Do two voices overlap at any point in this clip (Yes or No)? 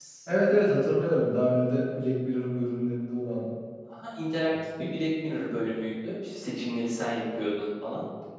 No